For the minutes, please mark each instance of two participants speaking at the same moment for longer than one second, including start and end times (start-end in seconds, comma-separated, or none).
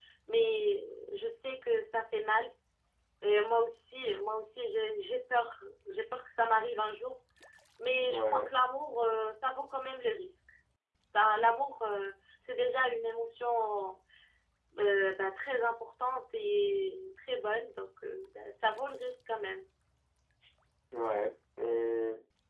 none